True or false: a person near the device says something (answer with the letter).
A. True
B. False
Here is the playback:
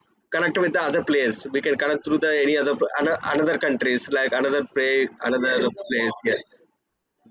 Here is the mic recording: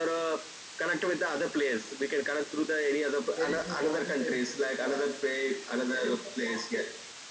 A